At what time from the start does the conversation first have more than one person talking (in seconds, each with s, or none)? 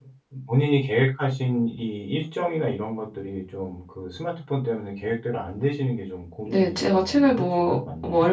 6.5 s